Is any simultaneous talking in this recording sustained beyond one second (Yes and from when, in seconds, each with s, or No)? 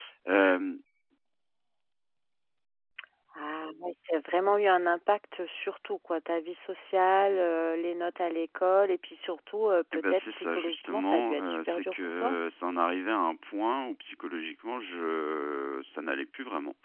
Yes, from 9.9 s